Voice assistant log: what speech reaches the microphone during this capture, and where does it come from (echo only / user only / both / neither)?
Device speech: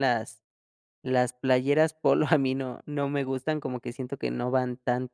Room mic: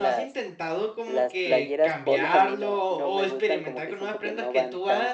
both